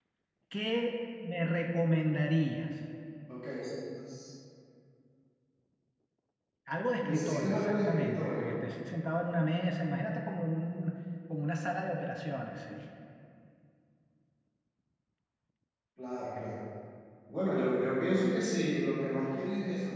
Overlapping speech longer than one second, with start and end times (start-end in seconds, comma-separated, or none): 7.0-8.6